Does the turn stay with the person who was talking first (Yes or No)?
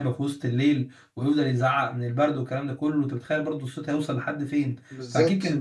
No